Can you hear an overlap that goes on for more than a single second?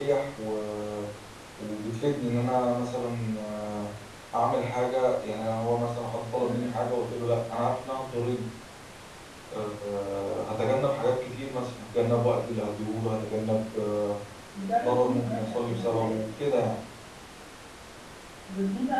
Yes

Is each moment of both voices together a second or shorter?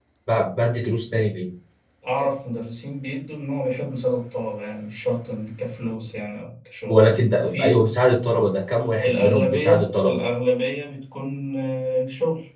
No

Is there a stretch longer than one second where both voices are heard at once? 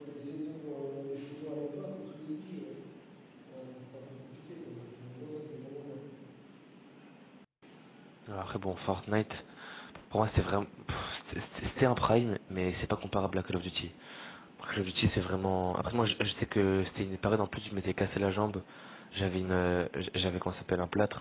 No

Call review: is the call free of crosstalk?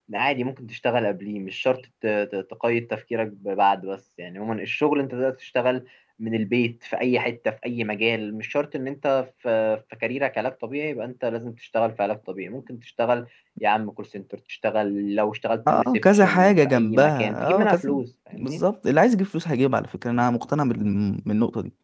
No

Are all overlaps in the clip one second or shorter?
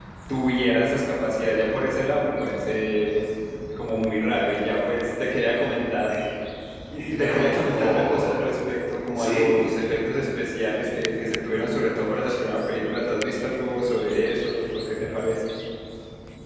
No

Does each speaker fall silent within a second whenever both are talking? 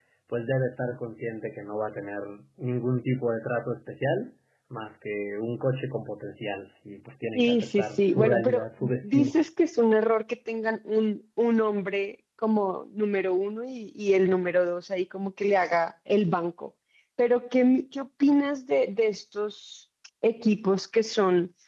No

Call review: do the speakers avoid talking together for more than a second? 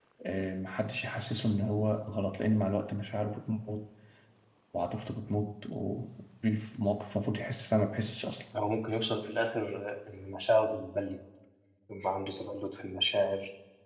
Yes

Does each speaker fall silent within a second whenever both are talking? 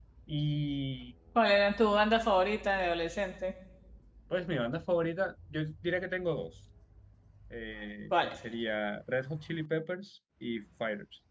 Yes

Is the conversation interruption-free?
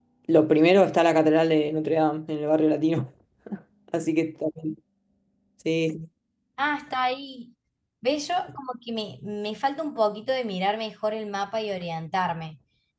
Yes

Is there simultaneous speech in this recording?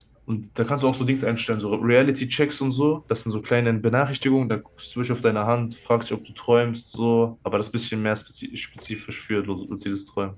No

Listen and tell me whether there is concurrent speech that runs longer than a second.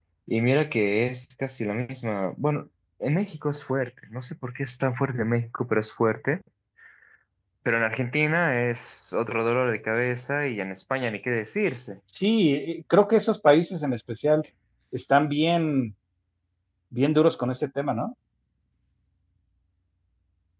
No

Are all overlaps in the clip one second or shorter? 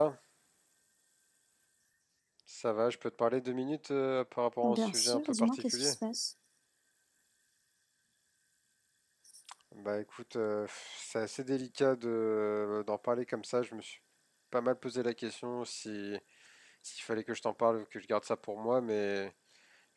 No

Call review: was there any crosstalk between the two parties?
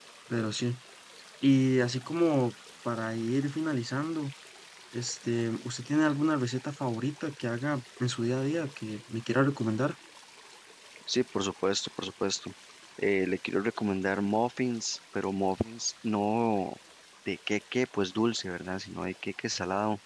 No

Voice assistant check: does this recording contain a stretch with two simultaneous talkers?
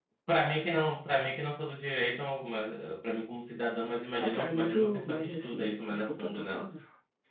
Yes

